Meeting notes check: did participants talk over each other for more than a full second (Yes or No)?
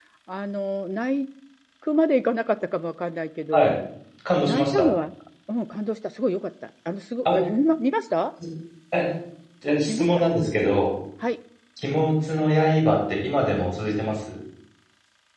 No